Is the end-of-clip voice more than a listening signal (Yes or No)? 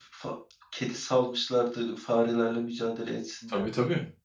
Yes